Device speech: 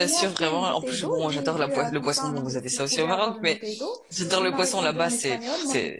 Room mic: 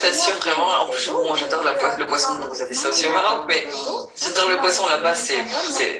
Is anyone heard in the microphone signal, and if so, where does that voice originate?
both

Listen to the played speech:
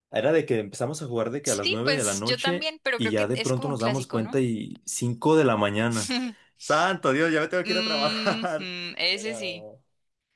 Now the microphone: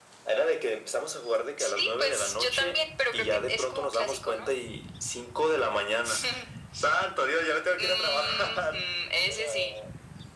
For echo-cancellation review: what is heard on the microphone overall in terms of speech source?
echo only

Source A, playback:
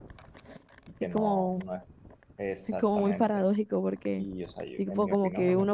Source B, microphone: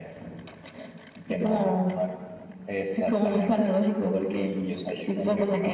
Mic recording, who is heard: echo only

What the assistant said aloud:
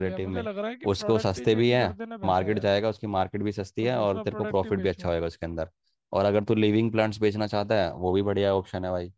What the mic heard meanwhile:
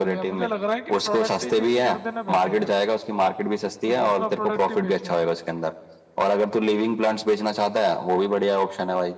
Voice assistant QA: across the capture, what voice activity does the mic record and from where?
echo only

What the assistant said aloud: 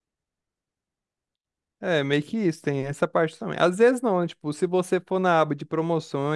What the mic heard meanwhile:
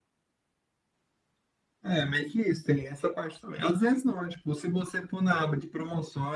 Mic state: echo only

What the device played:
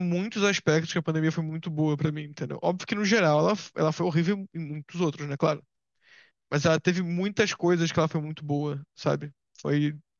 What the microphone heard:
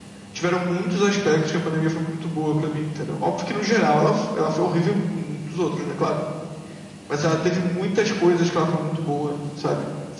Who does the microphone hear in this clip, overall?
echo only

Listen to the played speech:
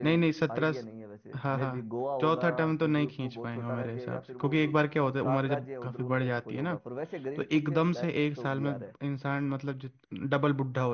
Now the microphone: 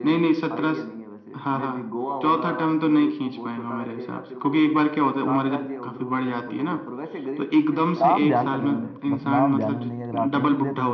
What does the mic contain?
both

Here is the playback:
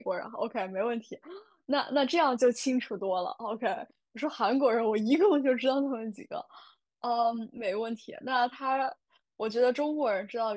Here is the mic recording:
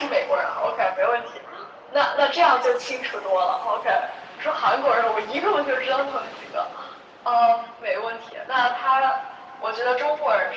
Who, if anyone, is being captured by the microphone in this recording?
echo only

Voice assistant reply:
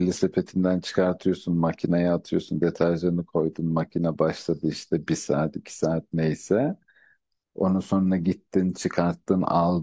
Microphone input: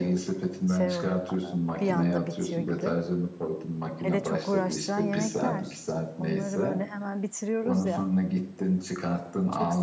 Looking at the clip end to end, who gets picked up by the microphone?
both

